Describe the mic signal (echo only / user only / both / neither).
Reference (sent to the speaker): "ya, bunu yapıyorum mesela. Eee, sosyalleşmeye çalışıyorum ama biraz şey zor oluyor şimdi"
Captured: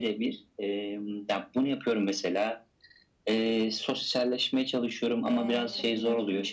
both